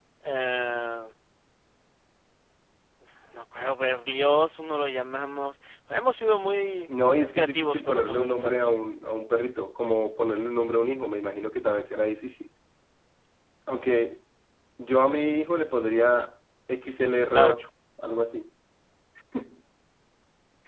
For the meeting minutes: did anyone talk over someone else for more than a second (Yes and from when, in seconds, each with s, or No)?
Yes, from 7.3 s